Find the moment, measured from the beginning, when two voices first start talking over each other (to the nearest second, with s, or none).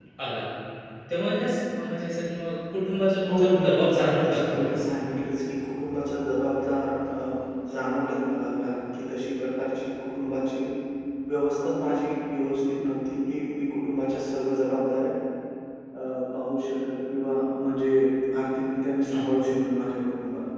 3 s